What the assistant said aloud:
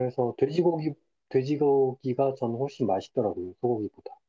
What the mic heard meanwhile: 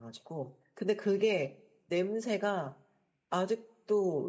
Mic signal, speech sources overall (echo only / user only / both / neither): user only